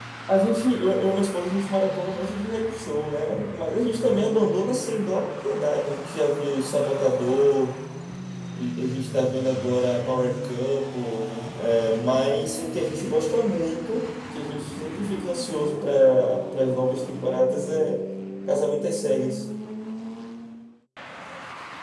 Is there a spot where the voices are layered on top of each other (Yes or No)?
No